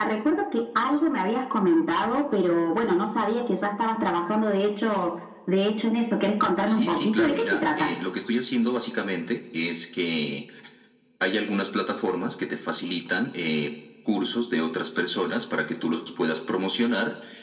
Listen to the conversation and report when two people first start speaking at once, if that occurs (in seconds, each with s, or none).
6.7 s